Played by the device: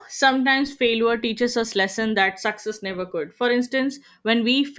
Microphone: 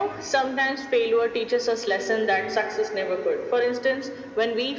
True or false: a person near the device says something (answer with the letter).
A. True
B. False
B